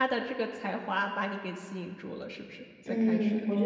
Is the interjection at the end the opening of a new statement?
Yes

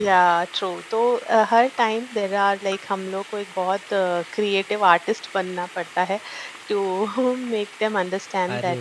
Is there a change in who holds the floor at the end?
Yes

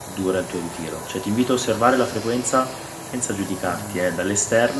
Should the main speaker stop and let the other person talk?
No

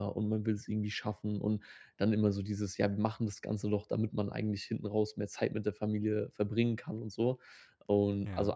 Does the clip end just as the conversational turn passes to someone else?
No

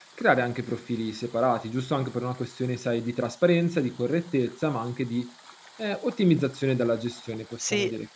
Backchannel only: No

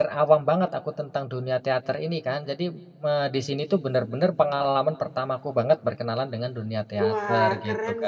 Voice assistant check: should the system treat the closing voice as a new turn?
Yes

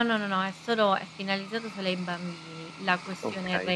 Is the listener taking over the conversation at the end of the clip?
No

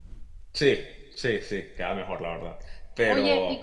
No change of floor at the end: No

